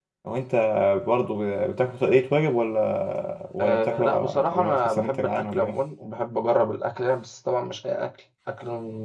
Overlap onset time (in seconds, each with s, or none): 3.6 s